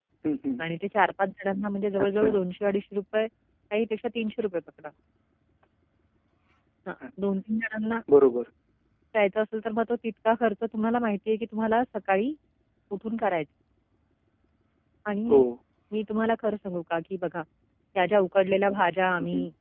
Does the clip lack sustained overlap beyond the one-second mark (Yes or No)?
Yes